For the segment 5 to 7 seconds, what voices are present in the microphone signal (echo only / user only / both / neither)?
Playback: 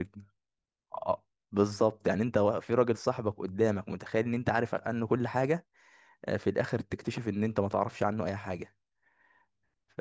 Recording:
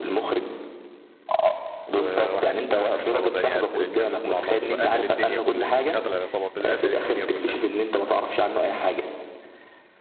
both